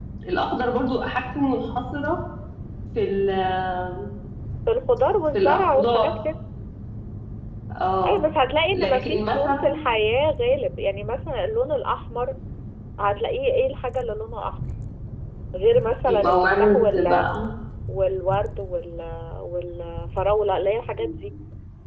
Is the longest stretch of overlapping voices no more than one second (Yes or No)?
No